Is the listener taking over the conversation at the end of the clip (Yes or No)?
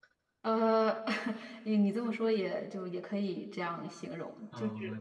Yes